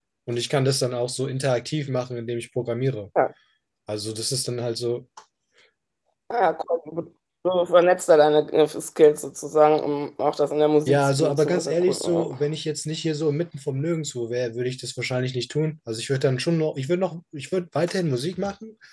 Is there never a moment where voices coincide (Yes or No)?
No